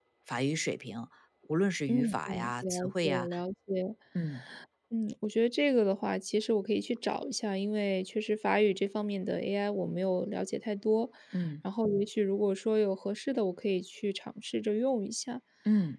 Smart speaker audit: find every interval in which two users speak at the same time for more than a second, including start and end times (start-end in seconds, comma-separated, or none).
1.9-3.3